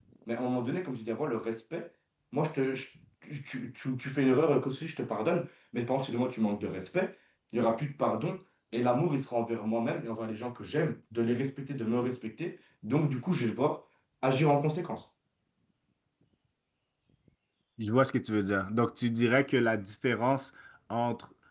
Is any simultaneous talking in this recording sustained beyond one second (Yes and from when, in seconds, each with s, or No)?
No